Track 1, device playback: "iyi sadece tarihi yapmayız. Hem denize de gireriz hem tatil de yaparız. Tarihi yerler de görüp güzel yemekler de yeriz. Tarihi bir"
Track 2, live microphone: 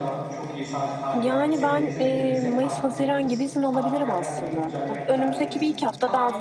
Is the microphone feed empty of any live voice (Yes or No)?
No